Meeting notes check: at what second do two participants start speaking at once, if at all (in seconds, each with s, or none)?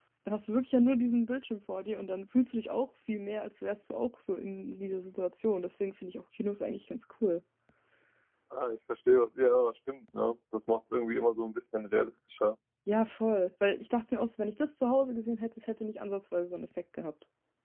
none